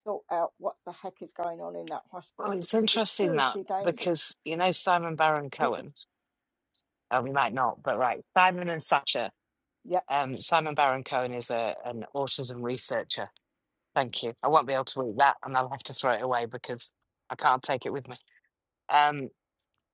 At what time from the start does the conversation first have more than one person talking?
2 s

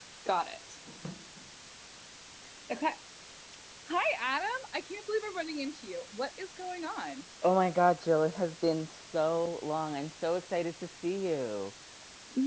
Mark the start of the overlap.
none

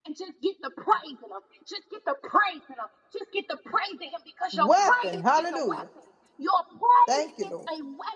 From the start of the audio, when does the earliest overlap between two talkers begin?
5 s

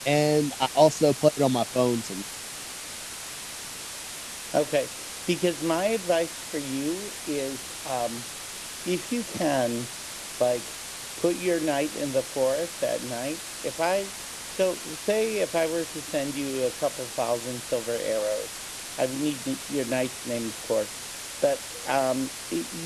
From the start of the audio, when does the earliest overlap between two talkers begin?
none

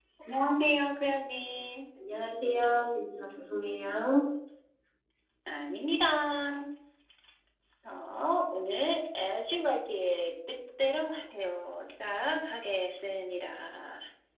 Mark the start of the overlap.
none

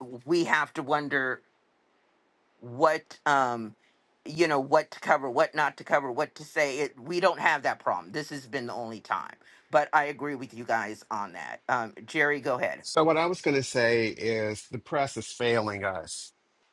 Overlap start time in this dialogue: none

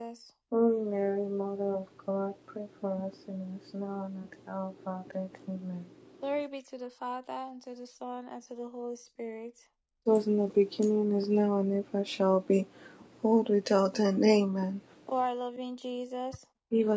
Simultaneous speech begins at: none

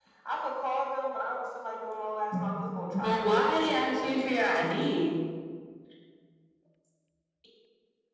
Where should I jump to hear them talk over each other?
3 s

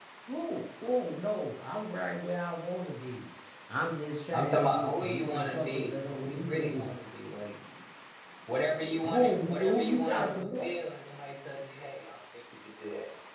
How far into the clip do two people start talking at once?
4 s

